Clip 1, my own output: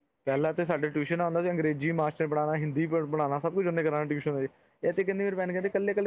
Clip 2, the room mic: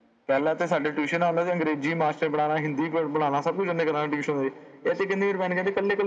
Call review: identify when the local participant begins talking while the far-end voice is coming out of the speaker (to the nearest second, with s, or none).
none